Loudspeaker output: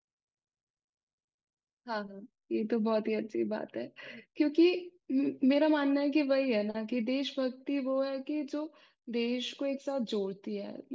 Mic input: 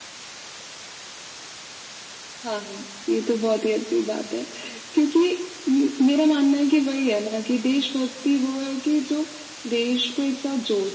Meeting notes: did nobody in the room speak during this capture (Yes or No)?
Yes